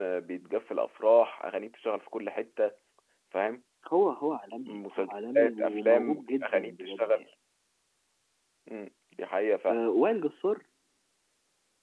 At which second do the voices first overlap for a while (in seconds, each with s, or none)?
4.7 s